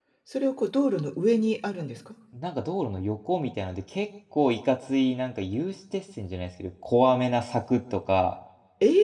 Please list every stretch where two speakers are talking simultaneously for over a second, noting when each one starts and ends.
none

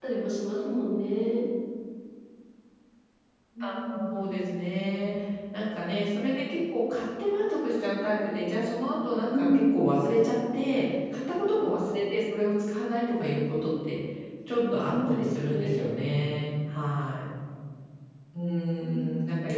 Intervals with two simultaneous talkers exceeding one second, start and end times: 14.6-15.9

